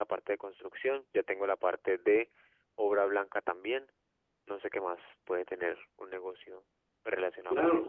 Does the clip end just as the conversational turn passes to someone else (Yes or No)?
Yes